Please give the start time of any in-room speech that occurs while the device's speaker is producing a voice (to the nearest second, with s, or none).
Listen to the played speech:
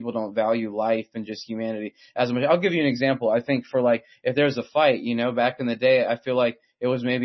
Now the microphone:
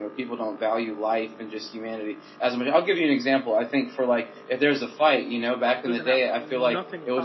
6 s